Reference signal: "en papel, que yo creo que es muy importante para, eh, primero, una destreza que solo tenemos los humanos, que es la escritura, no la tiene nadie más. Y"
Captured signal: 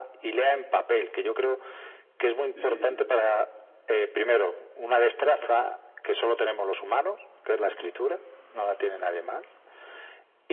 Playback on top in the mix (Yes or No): Yes